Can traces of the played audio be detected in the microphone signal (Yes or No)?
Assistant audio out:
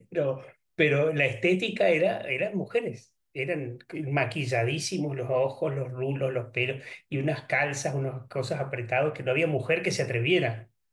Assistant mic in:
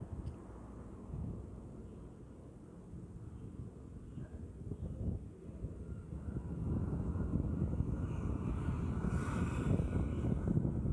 No